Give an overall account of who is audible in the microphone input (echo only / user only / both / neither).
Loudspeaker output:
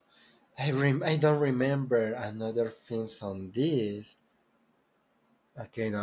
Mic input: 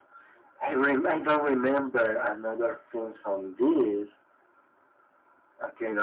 echo only